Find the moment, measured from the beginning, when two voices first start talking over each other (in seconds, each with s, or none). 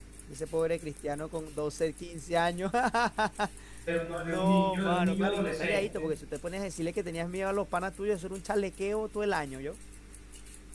4.1 s